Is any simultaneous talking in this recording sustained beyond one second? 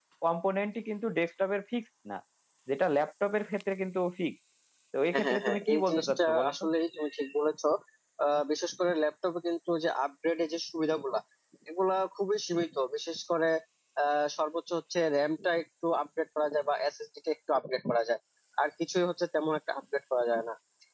Yes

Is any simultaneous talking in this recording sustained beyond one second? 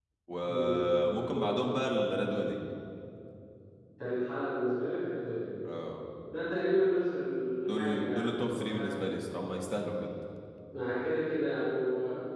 Yes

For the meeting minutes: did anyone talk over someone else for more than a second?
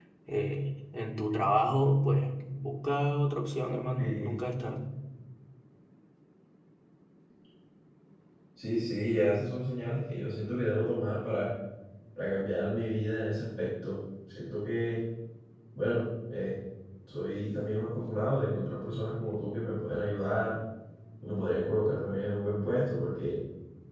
No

